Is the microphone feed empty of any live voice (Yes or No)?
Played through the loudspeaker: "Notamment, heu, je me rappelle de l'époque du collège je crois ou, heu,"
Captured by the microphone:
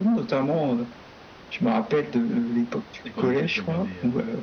No